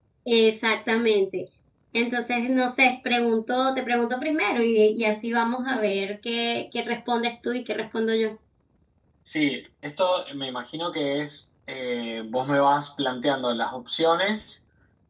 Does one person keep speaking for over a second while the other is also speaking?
No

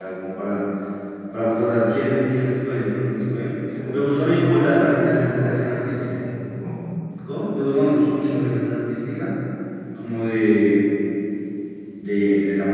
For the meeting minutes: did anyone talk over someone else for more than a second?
Yes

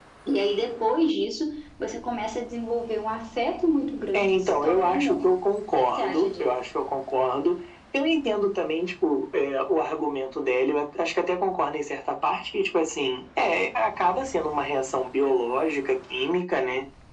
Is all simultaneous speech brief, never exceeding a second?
No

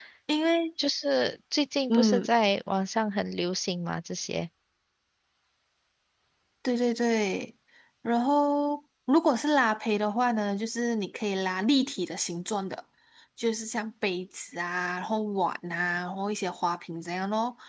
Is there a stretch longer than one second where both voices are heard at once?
No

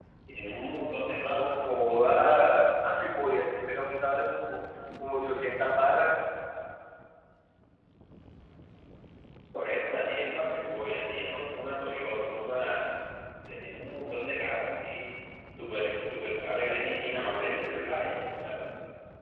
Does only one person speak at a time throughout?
No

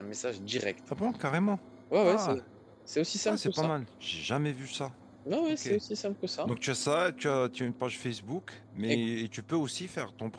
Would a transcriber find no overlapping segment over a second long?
Yes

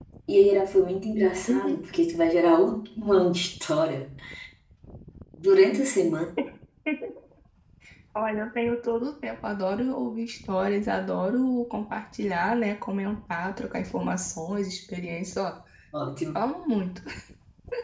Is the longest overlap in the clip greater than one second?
No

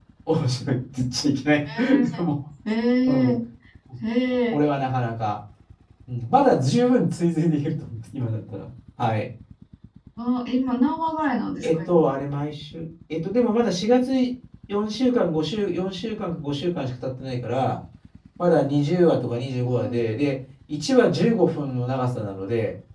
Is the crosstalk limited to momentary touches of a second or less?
Yes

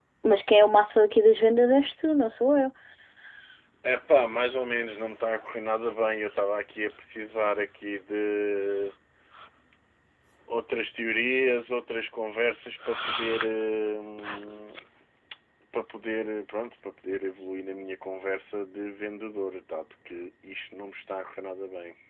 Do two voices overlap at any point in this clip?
No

